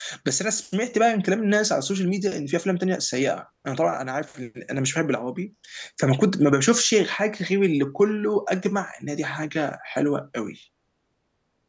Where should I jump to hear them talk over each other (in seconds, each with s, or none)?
none